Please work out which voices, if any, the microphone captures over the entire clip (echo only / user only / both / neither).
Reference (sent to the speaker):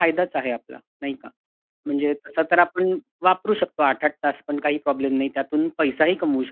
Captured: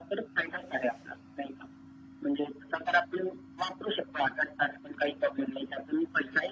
echo only